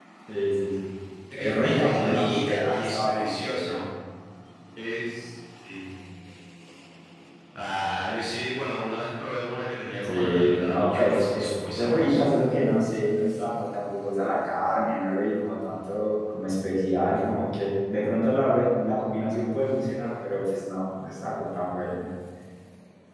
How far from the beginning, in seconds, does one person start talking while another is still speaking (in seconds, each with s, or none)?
1.3 s